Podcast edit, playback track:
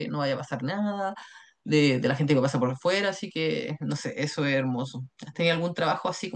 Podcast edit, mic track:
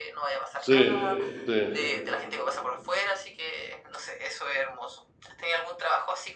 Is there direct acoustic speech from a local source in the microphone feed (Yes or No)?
Yes